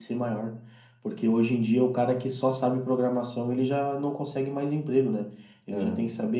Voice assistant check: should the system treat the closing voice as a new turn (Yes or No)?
No